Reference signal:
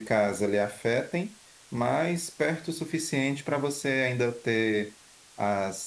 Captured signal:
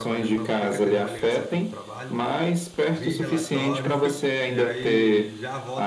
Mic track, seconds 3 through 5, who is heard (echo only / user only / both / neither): both